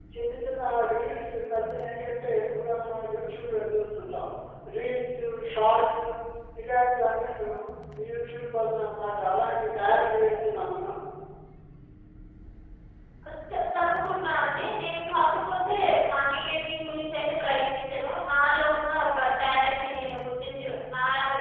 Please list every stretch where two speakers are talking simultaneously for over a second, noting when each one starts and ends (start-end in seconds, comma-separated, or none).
none